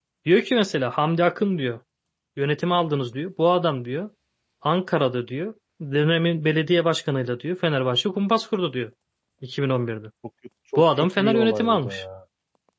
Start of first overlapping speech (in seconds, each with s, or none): 10.8 s